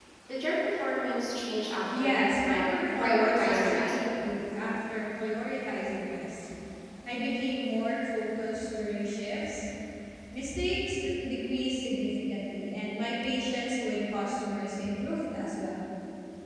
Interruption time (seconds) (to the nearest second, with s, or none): 2 s